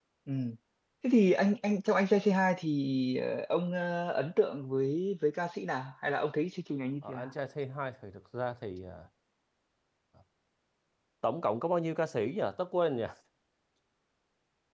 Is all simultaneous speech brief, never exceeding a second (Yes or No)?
Yes